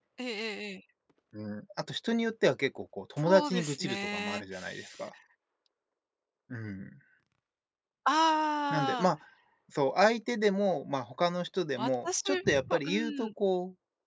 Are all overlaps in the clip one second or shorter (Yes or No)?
No